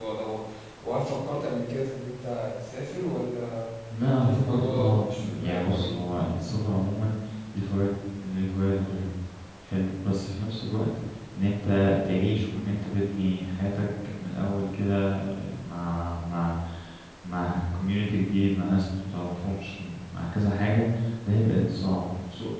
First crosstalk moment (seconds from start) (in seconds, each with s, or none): 4.2 s